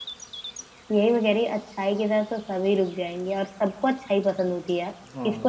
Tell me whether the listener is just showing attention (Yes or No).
Yes